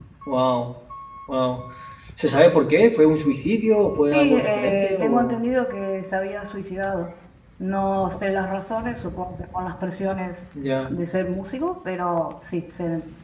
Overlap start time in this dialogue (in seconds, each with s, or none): 4.1 s